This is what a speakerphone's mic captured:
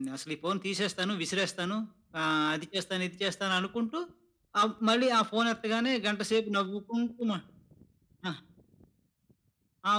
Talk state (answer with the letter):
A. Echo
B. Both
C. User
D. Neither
A